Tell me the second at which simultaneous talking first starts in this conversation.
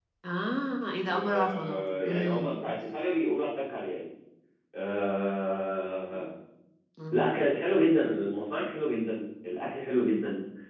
1.1 s

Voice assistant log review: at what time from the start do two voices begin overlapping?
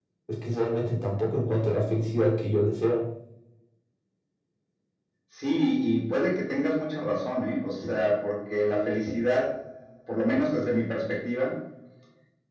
none

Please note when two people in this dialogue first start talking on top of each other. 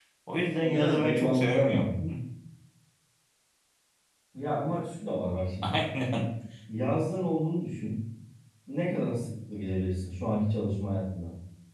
0.6 s

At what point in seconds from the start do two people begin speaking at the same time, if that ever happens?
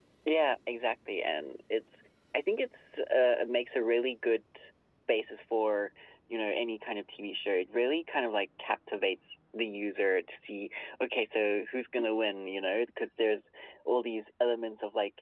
none

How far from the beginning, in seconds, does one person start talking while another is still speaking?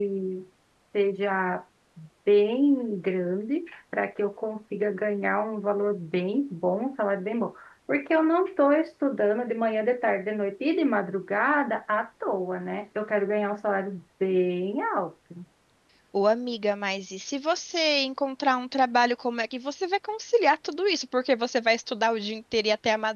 none

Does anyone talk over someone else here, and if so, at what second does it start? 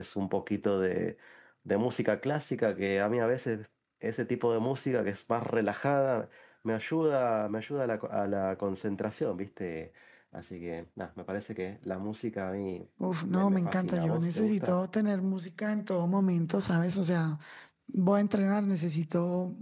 13.3 s

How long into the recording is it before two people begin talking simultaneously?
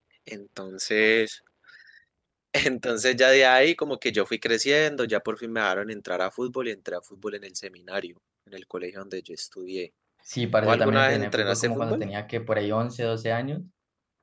10.6 s

